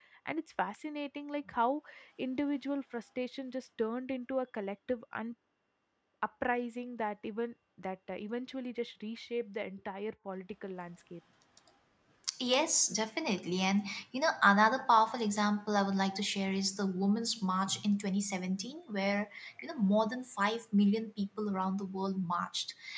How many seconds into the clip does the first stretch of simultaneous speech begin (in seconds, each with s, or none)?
none